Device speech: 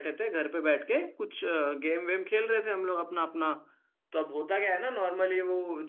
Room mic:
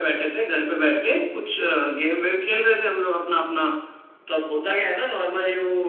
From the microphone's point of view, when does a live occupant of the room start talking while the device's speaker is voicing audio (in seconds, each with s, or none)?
none